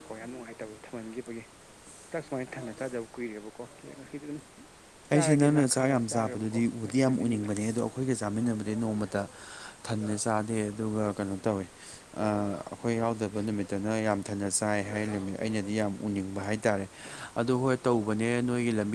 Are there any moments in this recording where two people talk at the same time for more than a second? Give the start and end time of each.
5.1-7.5

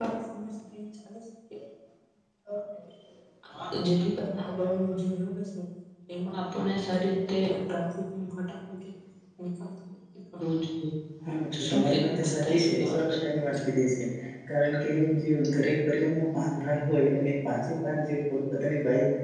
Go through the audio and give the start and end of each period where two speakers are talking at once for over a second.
11.6-13.2

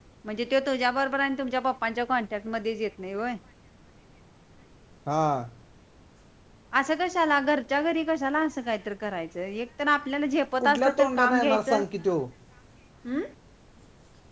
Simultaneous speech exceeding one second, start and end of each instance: 10.6-11.8

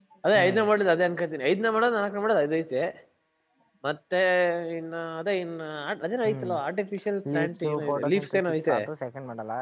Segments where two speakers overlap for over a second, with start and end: 7.3-8.8

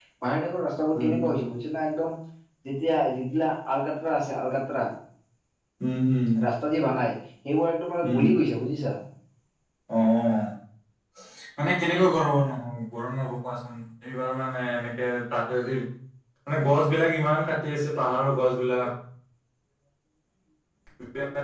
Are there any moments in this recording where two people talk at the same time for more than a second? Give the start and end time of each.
none

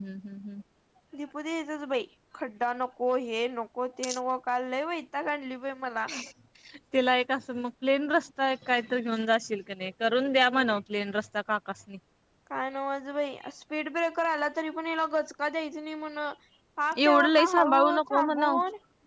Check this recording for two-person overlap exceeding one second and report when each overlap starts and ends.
17.0-18.6

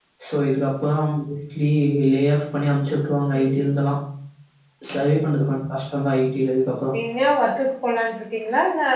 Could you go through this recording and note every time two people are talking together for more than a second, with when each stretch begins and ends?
none

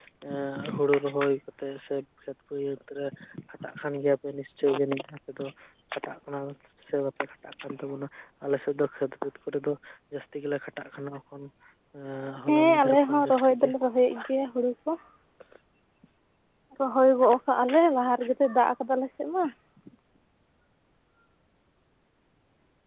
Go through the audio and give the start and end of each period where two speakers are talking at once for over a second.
12.5-13.7

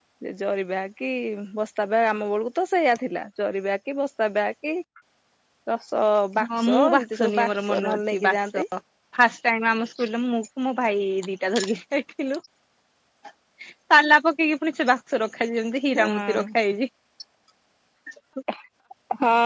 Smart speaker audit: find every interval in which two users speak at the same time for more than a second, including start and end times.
6.4-8.6

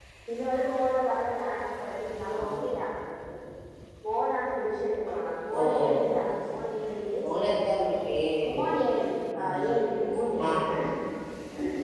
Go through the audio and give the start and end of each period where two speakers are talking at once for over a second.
none

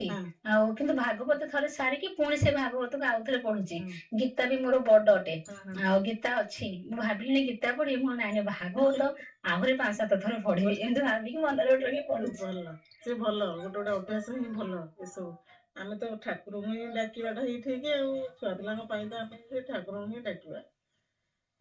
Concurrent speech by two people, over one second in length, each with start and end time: none

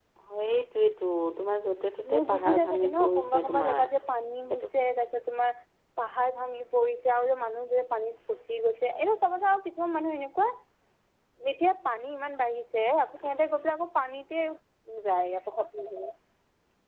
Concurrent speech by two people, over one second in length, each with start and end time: 2.1-3.9

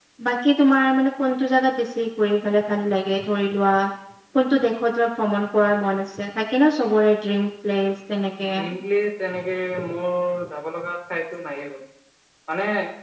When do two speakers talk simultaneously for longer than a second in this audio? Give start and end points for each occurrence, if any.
none

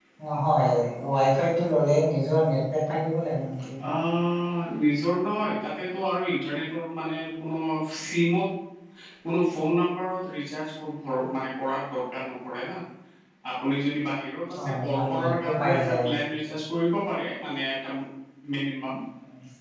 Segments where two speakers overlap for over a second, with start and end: 14.6-16.0

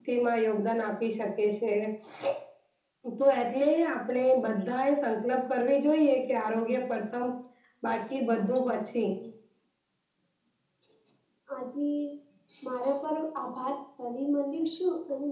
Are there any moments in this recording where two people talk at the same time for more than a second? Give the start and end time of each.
7.9-9.1

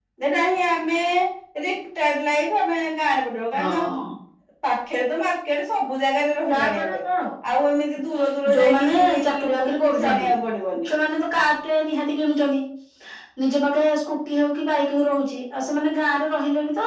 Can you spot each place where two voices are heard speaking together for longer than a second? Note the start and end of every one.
8.5-10.2

